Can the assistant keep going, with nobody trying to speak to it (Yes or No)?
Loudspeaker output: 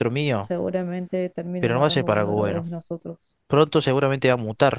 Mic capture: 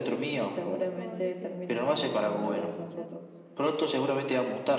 No